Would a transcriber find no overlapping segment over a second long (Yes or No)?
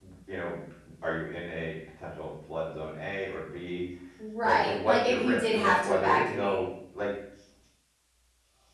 No